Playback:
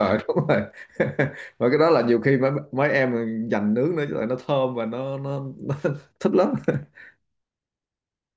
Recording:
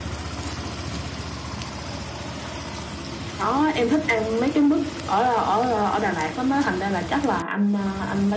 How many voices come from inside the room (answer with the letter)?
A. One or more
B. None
A